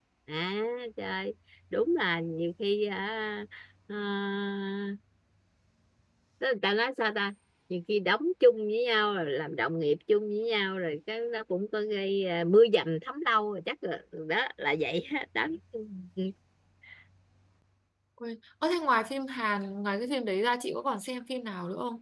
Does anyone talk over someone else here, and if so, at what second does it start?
none

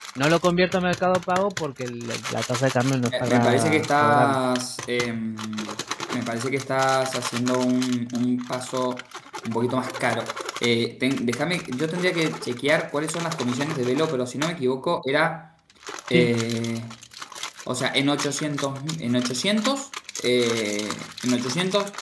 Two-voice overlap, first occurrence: 3 s

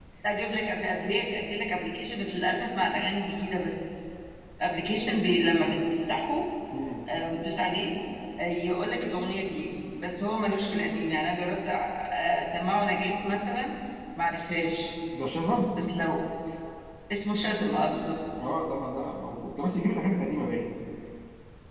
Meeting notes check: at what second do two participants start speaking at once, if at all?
none

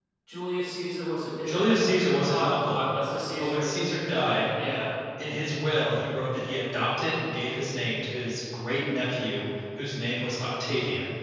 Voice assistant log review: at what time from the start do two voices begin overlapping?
1 s

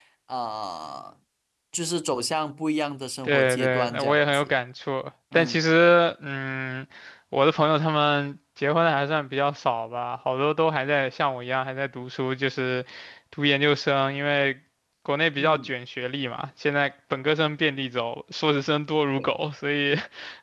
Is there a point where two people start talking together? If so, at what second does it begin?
3 s

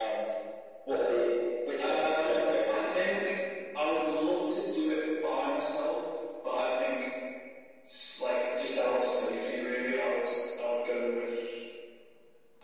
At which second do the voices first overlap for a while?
2 s

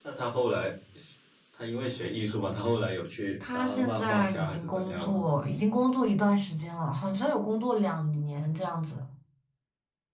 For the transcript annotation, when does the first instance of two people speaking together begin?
3 s

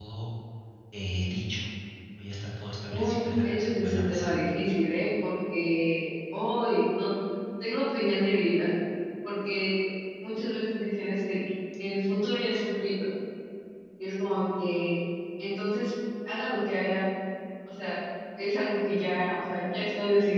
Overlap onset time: 3 s

